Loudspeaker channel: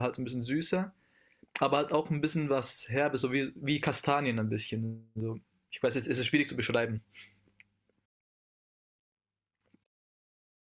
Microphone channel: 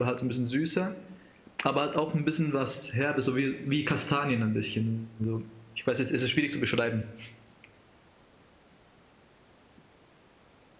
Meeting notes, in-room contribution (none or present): none